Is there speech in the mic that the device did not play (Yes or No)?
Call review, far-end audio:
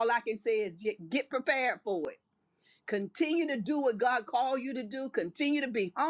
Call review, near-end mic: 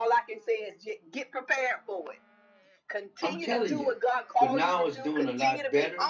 Yes